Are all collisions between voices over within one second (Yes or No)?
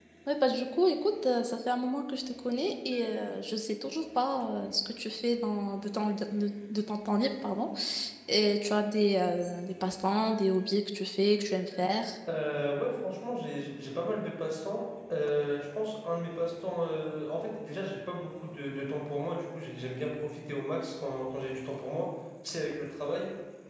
Yes